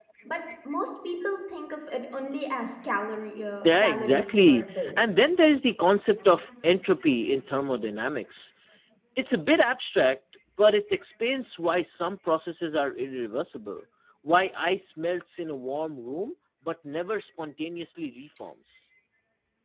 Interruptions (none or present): present